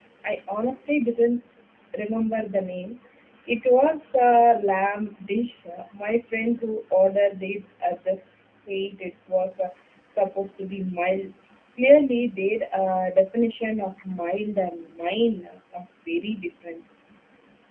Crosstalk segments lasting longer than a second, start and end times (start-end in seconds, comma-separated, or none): none